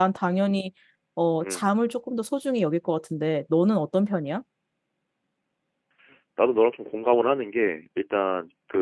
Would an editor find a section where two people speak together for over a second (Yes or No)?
No